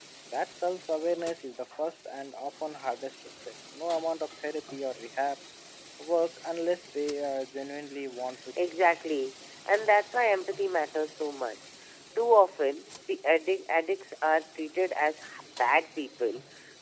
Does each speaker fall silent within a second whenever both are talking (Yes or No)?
Yes